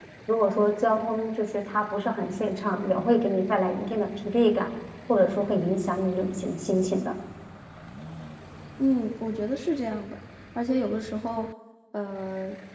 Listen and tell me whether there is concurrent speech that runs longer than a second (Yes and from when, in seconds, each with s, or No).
No